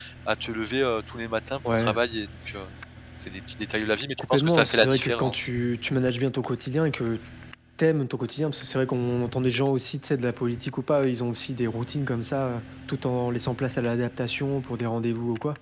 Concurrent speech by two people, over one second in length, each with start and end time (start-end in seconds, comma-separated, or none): 4.2-5.5